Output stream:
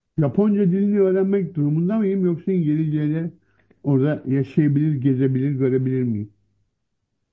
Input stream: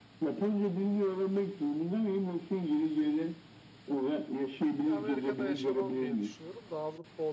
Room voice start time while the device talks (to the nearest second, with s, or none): 5 s